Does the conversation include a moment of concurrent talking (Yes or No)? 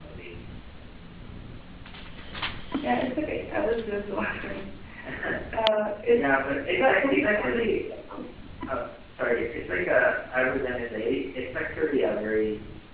Yes